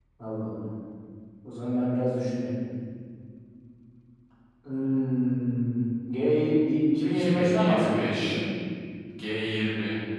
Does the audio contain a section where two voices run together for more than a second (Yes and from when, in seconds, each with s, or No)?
Yes, from 7.1 s